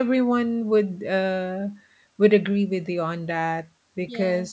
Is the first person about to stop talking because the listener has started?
No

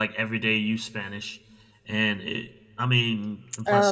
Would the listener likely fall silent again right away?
Yes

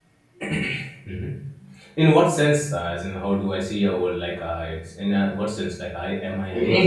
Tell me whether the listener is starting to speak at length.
Yes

